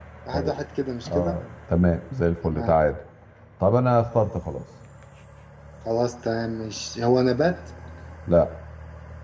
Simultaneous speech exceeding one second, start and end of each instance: none

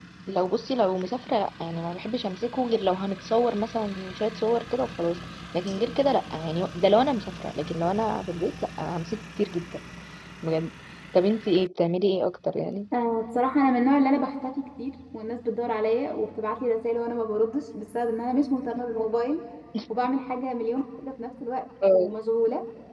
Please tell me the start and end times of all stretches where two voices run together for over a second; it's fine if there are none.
none

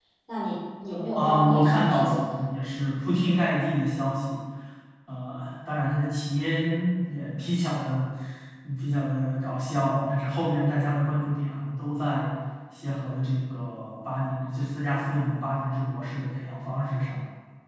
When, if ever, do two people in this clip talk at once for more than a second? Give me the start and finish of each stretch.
1.2-2.4

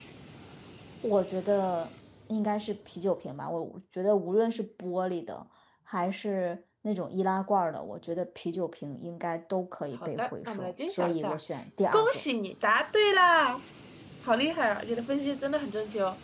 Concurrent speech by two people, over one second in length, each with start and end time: 10.0-11.4

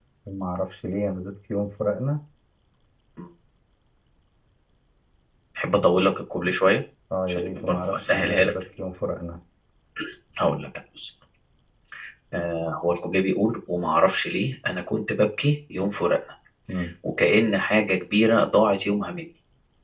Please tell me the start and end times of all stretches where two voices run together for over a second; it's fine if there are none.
7.3-8.5

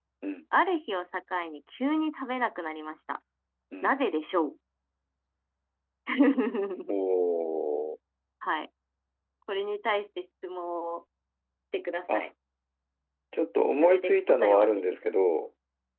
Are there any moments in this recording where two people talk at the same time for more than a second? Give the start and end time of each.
13.8-15.1

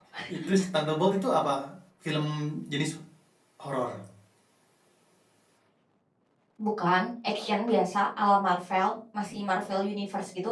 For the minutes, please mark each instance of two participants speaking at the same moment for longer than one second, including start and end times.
none

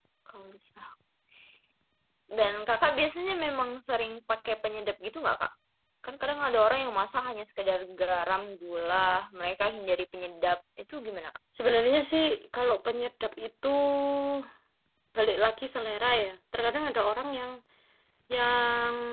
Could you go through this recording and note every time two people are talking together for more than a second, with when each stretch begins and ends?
none

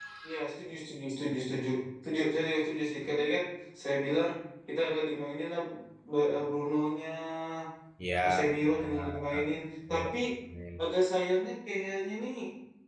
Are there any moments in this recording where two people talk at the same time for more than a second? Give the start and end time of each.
8.2-9.6

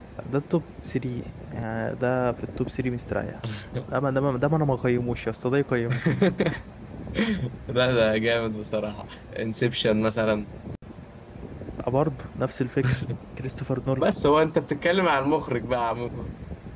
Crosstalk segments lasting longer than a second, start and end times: none

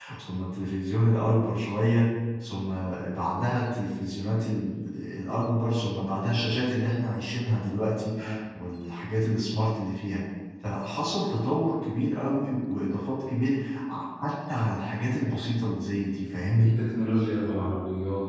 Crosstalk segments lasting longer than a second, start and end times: none

